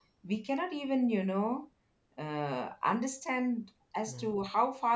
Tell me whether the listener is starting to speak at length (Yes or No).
No